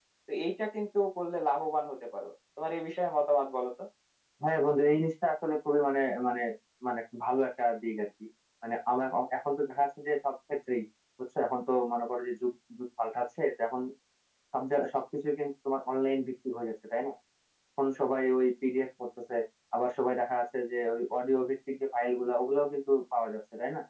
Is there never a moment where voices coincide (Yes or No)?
Yes